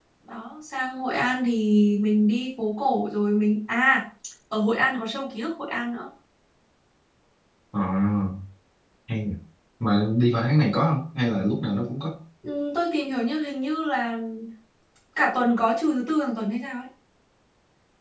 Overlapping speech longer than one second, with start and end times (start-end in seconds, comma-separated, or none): none